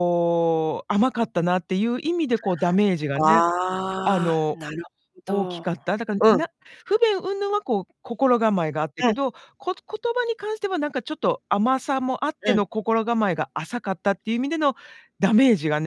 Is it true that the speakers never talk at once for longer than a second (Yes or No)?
Yes